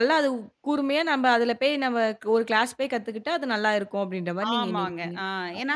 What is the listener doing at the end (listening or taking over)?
taking over